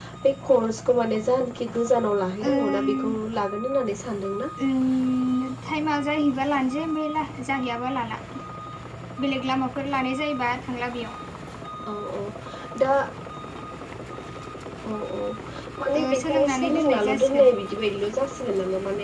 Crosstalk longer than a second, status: present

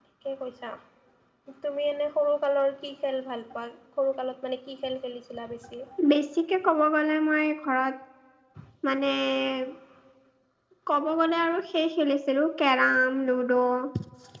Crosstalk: none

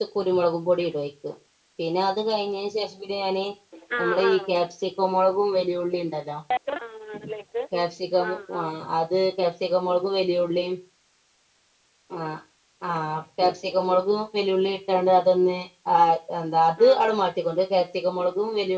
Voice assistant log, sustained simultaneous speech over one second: none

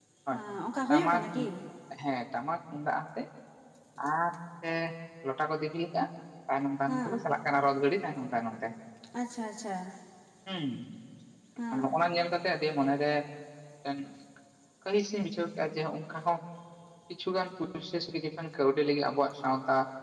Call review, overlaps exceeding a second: none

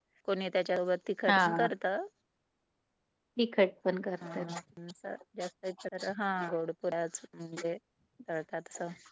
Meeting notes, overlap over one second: none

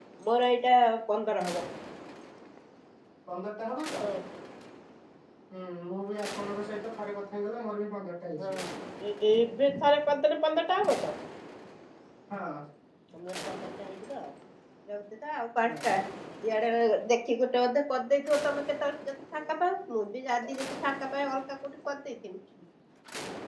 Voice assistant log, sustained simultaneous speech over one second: none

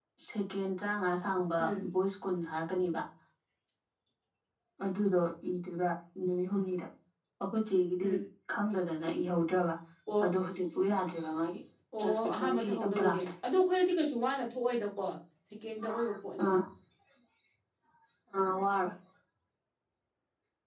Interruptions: present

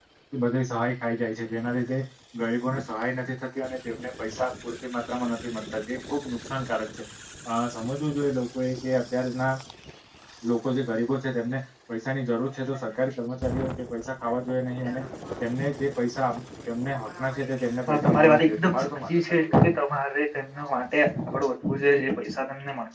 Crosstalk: present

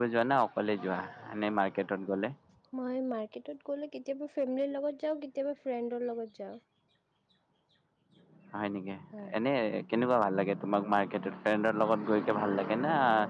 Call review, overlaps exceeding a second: none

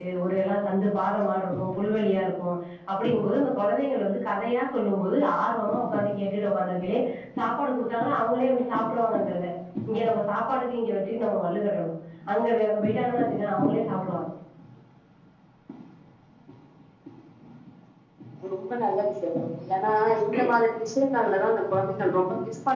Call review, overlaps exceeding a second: none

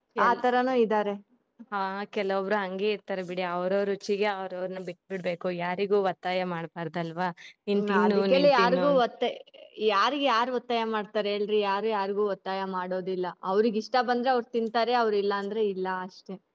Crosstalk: present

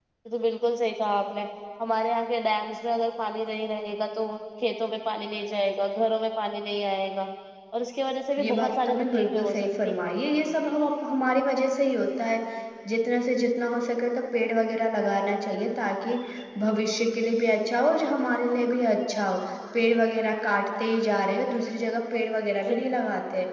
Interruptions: present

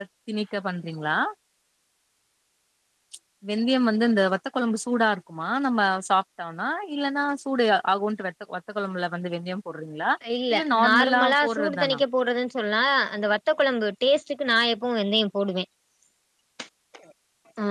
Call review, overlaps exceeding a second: present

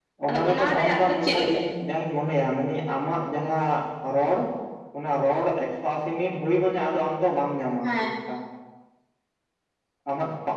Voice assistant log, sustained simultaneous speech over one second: present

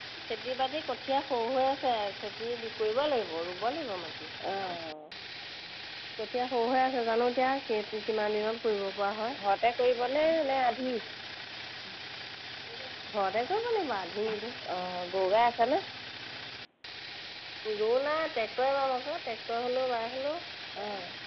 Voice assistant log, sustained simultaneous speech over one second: none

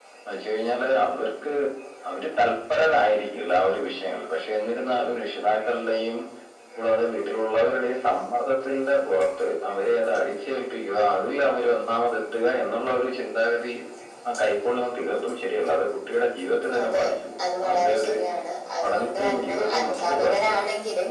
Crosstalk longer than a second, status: present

